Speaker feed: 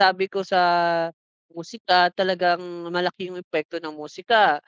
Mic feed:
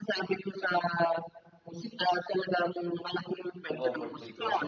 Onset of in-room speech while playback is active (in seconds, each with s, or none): 3.7 s